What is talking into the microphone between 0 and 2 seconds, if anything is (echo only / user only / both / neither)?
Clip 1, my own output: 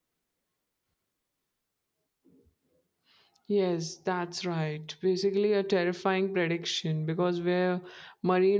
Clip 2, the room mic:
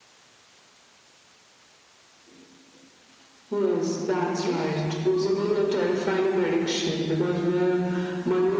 neither